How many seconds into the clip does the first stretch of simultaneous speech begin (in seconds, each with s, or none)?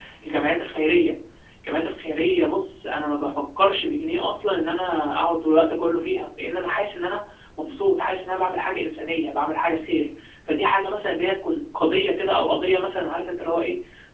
none